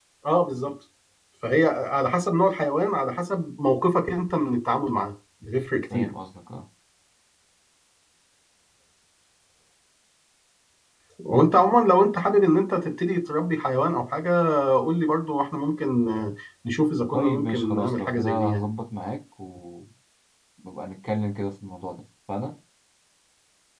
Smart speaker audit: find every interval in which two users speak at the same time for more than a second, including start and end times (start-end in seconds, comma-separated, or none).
17.1-18.6